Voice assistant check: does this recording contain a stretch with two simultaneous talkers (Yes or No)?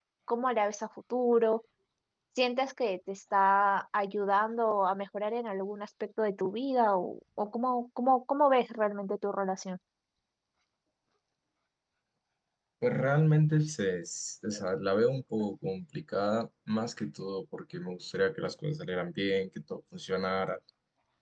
No